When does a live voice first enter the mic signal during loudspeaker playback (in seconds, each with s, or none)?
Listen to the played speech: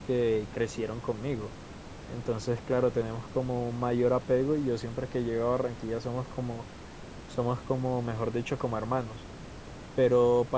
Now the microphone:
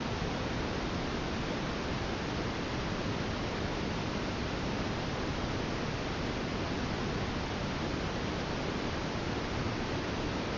none